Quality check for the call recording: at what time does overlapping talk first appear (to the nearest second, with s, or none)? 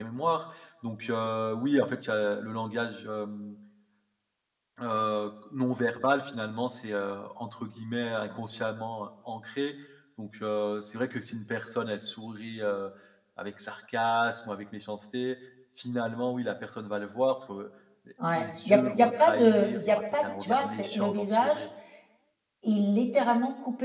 18 s